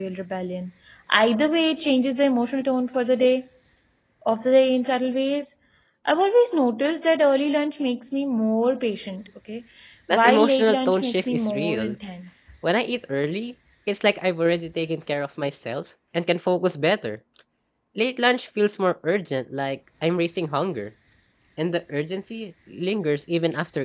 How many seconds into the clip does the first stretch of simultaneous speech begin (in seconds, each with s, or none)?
10.2 s